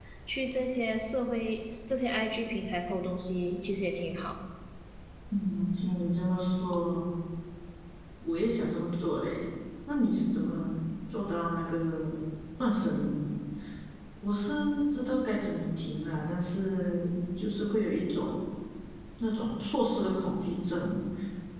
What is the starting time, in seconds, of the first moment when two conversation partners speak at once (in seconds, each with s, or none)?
none